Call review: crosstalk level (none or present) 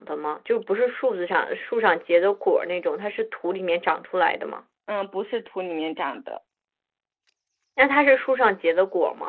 none